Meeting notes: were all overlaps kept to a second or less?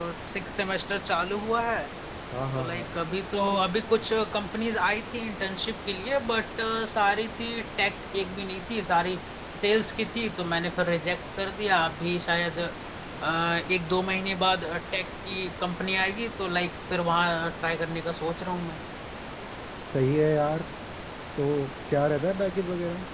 Yes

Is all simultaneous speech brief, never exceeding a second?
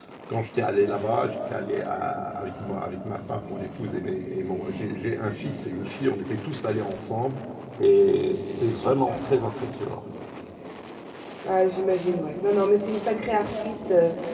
Yes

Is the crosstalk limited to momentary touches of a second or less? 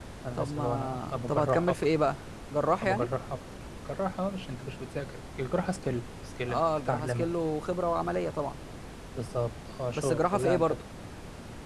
No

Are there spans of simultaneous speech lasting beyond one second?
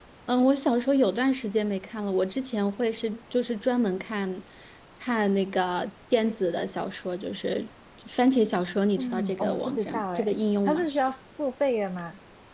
Yes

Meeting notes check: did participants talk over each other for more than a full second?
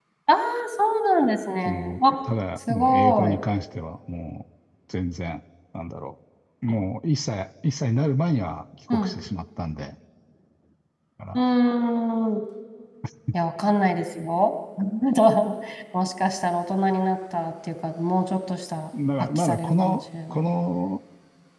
Yes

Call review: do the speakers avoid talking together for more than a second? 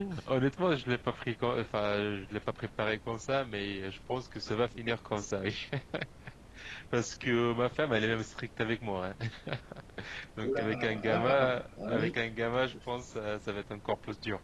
No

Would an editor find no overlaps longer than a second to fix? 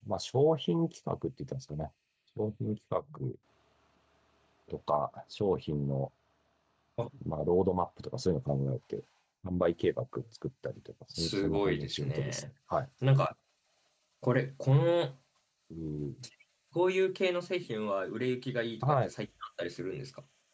No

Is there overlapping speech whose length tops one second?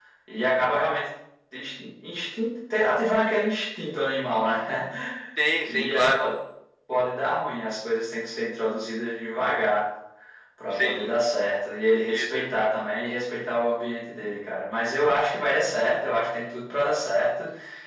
No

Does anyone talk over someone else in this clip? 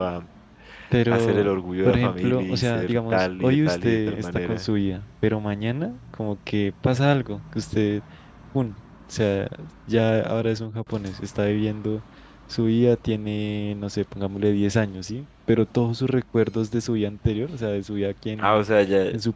Yes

